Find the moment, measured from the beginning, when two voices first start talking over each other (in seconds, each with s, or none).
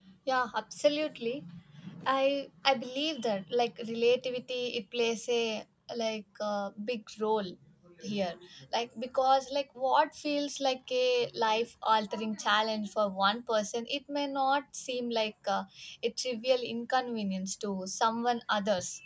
none